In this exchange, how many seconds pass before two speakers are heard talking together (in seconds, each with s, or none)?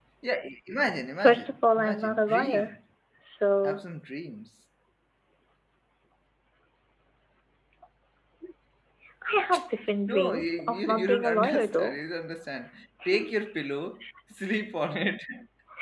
1.1 s